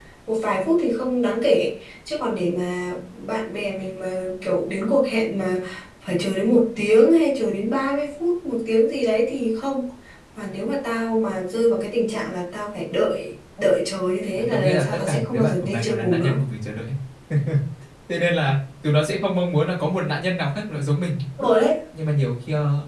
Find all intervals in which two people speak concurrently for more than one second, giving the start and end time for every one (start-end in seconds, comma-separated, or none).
14.3-16.4